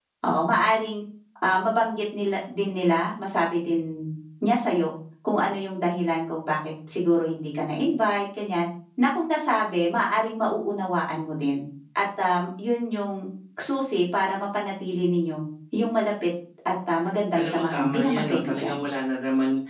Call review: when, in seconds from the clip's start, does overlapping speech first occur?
17 s

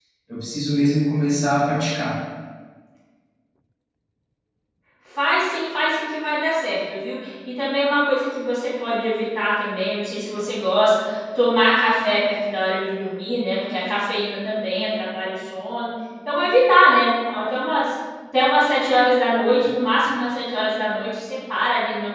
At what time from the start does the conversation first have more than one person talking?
none

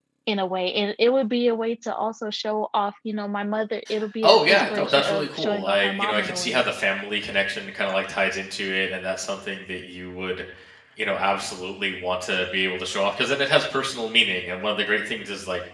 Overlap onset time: 4 s

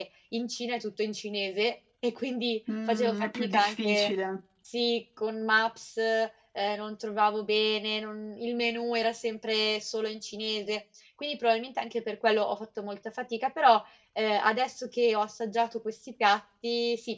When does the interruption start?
3 s

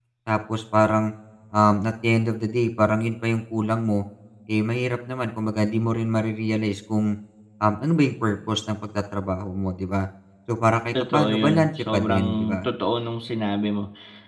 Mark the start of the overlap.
11 s

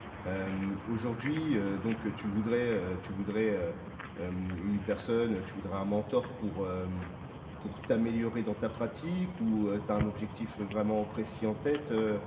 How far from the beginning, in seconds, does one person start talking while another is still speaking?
none

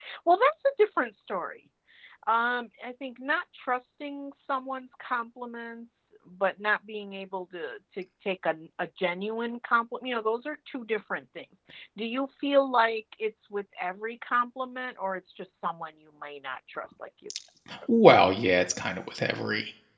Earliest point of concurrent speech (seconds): none

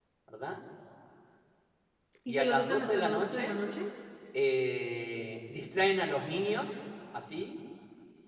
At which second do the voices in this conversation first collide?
2 s

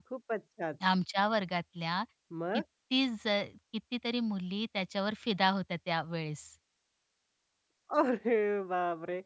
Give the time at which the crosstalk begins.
none

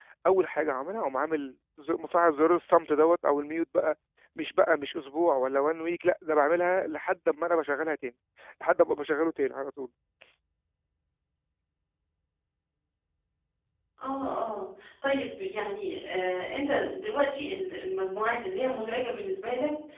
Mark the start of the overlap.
none

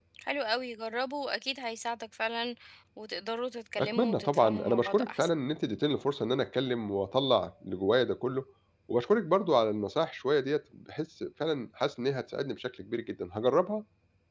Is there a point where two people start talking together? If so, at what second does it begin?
4 s

